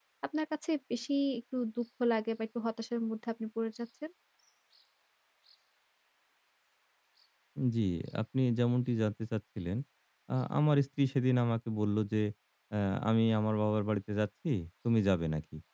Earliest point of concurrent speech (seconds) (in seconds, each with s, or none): none